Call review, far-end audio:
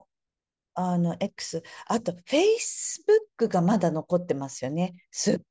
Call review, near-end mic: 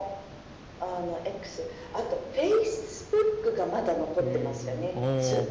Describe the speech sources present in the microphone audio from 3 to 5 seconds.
both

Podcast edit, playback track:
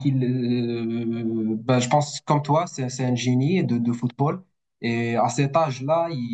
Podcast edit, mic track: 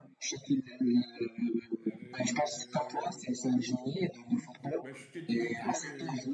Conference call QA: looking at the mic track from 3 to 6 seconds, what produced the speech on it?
both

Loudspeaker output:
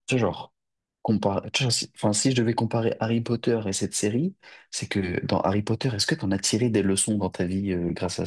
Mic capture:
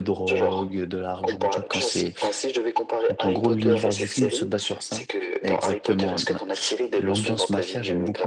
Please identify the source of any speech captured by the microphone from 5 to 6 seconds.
both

